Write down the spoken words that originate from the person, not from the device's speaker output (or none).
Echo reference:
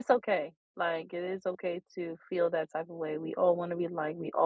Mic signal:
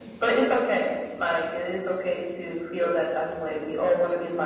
none